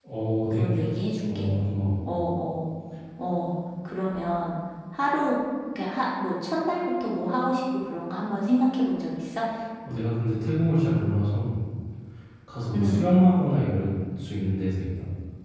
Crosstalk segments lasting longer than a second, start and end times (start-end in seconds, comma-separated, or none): none